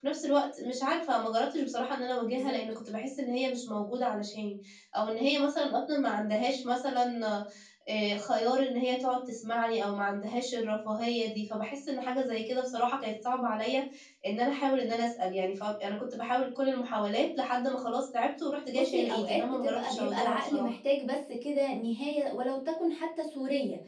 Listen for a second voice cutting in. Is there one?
Yes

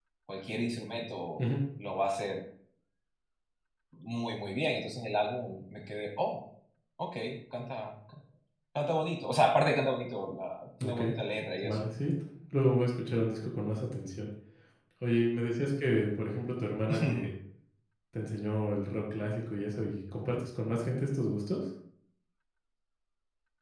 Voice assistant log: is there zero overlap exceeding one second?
Yes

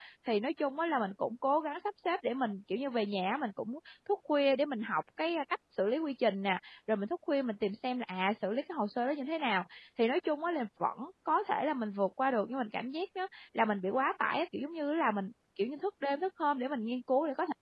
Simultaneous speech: No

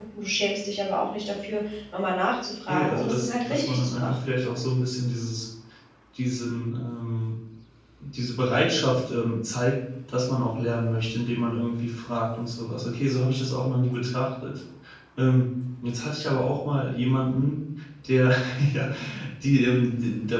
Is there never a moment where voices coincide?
No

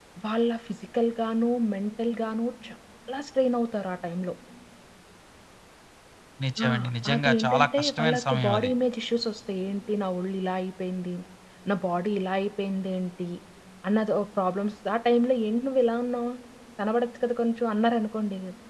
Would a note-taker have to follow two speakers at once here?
Yes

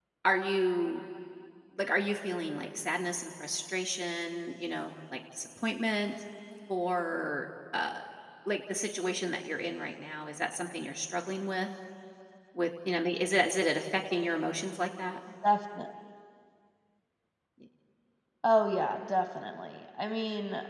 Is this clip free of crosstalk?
Yes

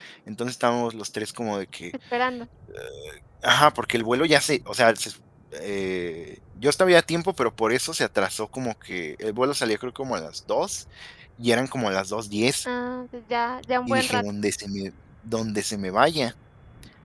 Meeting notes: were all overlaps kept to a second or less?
Yes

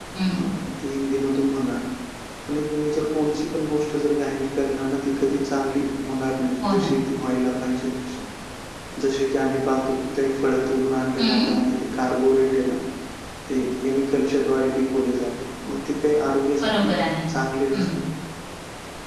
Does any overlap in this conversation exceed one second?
No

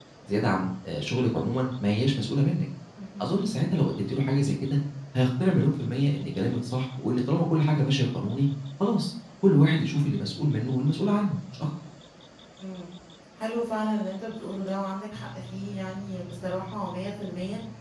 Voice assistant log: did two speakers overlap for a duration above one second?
No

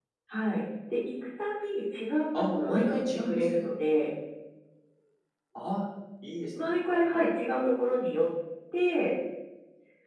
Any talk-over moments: Yes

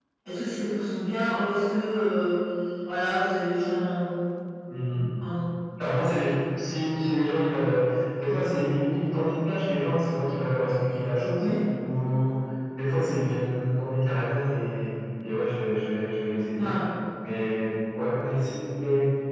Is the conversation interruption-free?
Yes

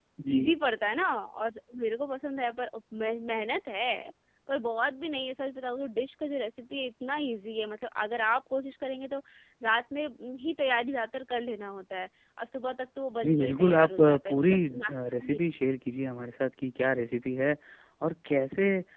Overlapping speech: Yes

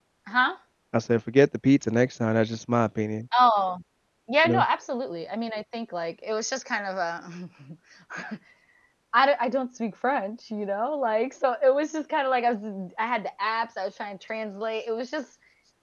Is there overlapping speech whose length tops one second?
No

